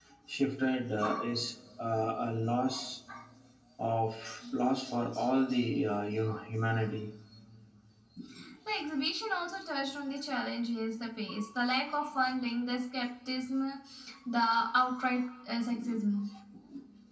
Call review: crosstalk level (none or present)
none